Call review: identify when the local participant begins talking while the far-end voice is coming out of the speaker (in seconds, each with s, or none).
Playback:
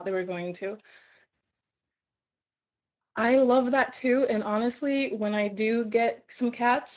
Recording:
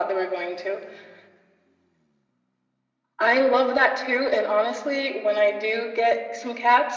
none